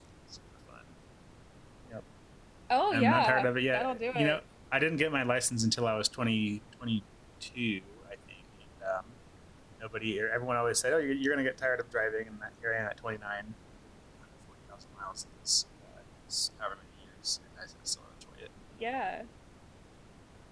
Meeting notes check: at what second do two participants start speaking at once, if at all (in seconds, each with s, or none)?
2.9 s